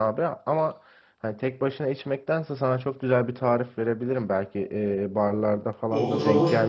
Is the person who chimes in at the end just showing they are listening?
Yes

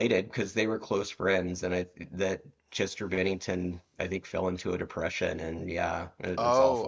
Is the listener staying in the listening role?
No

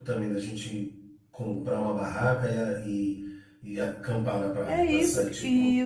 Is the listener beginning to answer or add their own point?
Yes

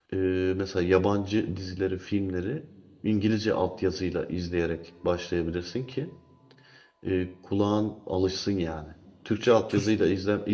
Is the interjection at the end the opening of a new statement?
No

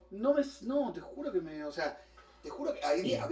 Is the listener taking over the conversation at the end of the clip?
No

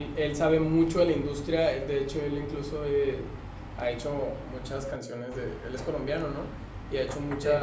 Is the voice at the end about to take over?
No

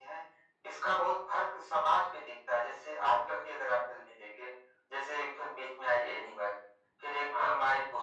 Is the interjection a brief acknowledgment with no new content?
Yes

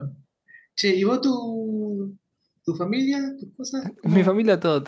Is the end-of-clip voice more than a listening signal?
Yes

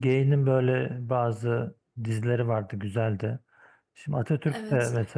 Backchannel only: Yes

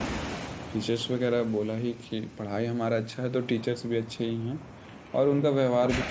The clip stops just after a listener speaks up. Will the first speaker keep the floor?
Yes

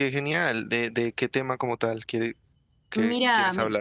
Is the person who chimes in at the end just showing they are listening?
No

